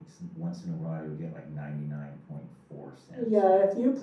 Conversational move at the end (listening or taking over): taking over